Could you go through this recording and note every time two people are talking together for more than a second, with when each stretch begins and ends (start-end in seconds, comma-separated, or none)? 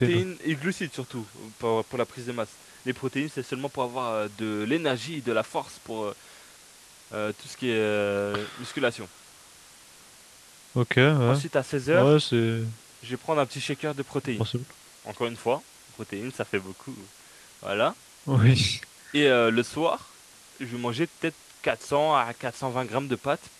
none